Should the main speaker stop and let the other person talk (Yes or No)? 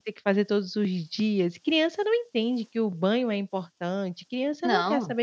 No